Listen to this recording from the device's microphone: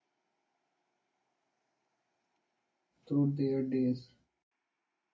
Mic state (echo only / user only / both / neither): user only